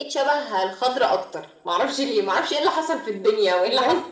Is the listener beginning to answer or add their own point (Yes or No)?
Yes